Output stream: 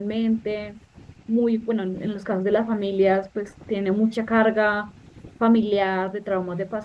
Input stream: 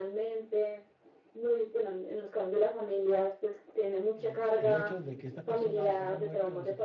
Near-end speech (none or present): present